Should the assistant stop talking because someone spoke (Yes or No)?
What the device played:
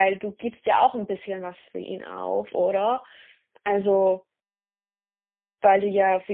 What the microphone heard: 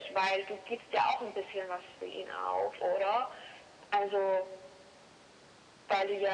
No